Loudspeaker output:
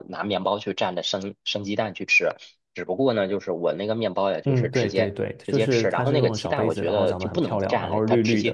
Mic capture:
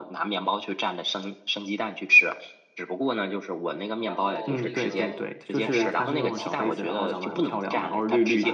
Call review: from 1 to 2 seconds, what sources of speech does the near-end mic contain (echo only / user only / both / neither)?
echo only